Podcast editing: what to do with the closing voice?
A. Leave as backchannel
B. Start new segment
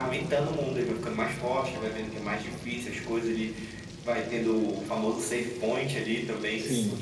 A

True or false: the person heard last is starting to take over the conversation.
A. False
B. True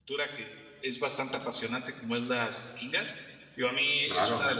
A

